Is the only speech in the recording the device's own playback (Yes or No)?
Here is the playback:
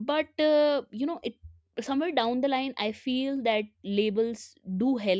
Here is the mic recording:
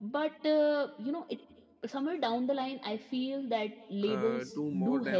No